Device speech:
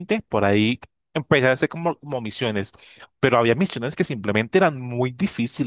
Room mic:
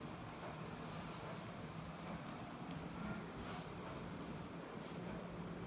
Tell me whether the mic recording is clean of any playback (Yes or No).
Yes